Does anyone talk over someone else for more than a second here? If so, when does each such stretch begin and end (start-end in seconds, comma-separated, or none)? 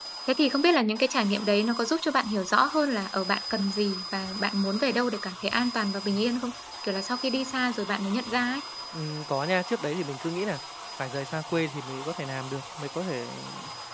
none